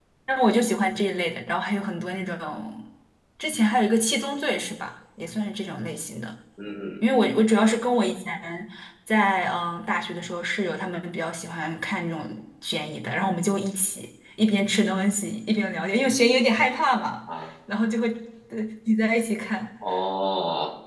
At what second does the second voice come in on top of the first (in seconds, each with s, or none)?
none